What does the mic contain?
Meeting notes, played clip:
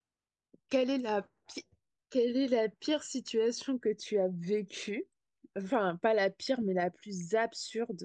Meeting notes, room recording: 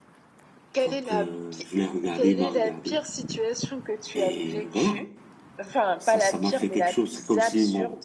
both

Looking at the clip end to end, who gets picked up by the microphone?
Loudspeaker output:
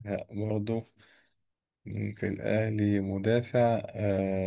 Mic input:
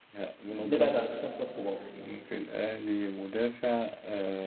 both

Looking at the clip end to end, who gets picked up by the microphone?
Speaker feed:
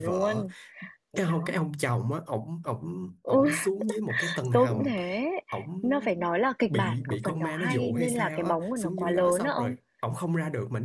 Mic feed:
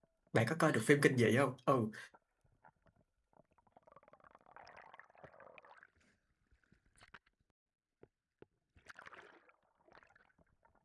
user only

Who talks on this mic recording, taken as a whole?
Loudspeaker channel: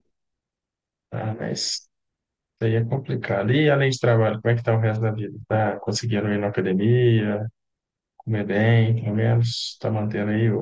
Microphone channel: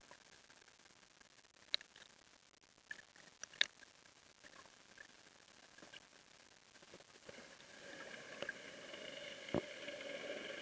neither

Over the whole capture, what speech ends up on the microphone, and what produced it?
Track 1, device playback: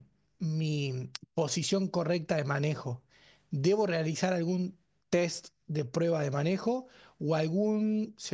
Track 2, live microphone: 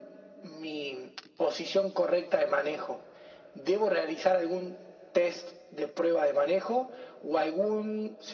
echo only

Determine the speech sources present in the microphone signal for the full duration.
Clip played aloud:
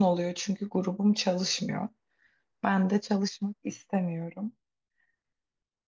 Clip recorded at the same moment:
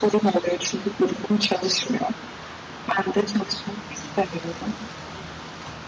echo only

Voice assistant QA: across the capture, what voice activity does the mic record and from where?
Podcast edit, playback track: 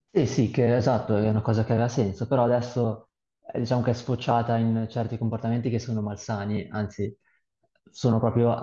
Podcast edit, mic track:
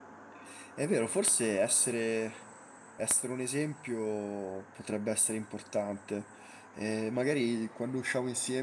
user only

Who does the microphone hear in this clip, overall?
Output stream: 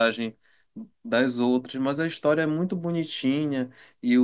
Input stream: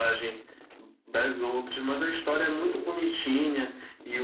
both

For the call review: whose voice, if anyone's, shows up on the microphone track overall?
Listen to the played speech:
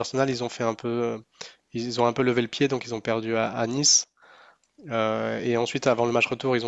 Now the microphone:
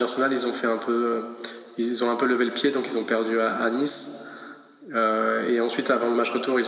echo only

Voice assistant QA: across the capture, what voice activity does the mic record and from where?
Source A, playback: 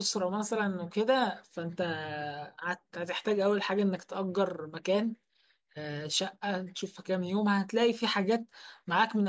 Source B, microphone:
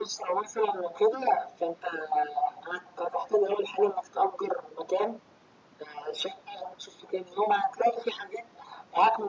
echo only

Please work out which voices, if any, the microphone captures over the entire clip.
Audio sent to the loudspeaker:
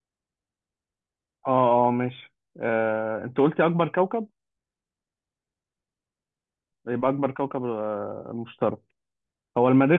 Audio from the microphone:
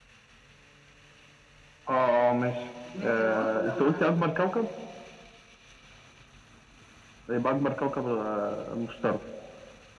both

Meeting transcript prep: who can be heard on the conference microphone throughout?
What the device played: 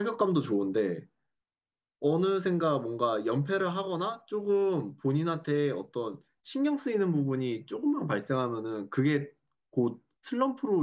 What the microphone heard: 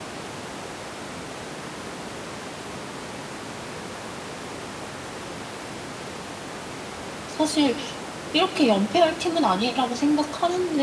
user only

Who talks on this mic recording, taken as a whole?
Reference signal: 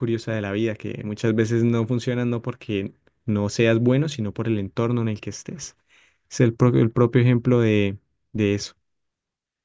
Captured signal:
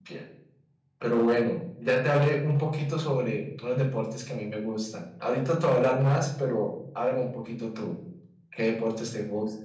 user only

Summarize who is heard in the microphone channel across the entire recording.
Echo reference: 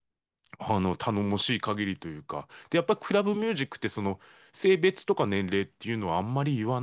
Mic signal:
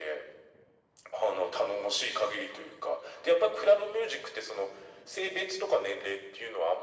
echo only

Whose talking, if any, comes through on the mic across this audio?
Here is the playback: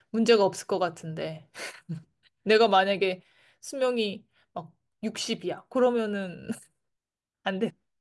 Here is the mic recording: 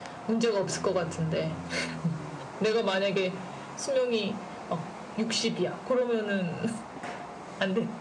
echo only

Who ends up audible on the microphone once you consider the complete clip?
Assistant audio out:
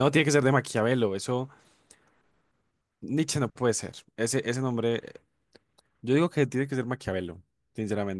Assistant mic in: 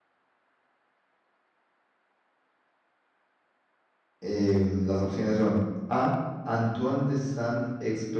user only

